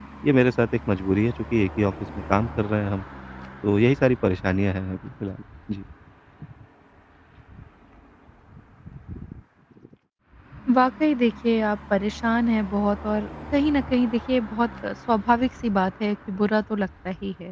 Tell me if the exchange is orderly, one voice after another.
Yes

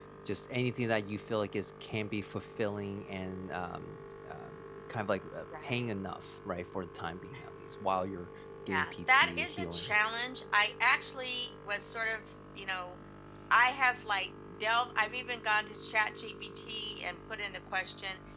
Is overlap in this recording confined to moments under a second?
No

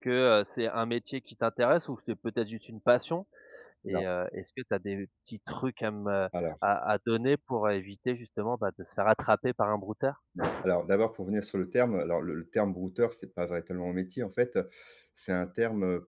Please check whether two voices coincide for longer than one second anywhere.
No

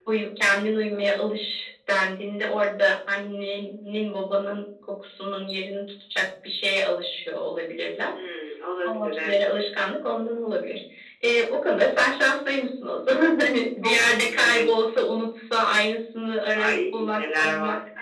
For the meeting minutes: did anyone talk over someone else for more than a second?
Yes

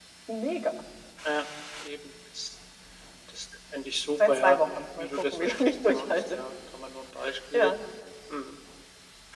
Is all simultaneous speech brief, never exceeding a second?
No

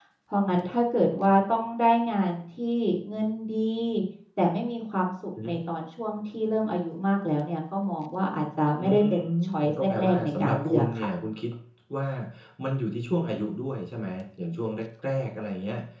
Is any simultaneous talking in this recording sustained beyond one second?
Yes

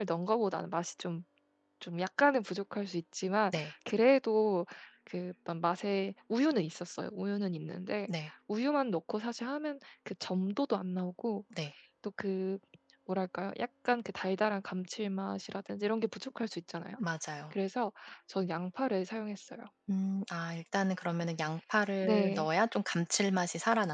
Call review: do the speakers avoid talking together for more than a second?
Yes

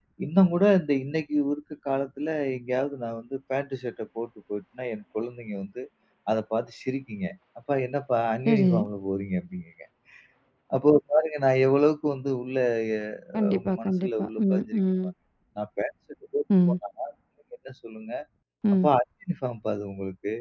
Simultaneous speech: Yes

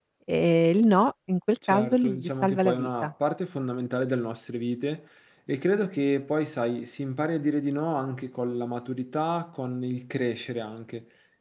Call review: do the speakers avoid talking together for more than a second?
No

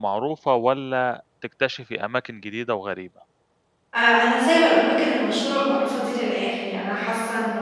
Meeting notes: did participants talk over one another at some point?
No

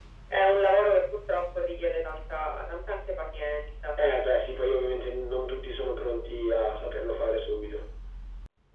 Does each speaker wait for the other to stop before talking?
Yes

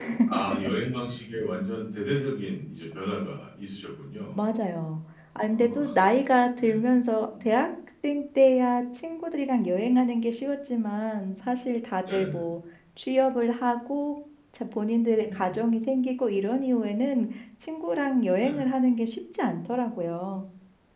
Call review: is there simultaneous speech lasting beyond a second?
No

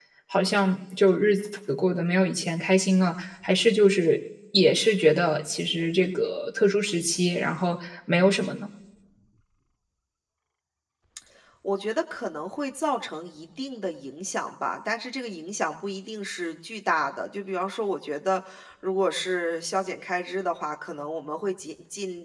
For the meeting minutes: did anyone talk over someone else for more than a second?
No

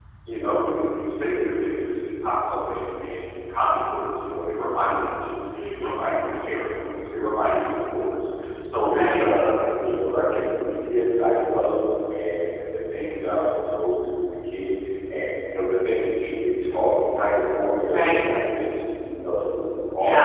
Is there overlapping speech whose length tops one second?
No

